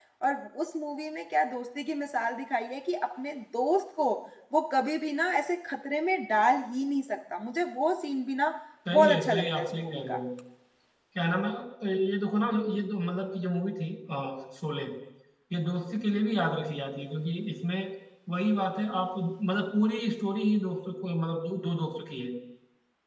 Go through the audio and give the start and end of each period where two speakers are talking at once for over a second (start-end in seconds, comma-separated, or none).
8.9-10.2